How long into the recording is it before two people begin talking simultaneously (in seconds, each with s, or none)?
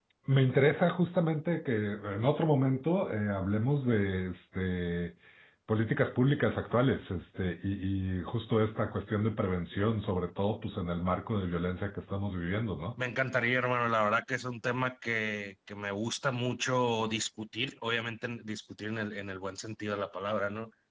none